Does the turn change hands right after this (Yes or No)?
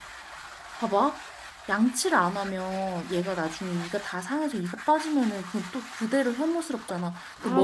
No